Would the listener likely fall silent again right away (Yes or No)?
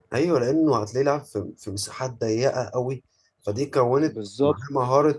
Yes